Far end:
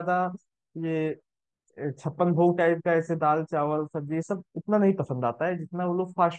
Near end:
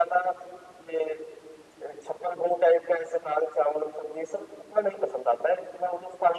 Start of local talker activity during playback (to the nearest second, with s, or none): none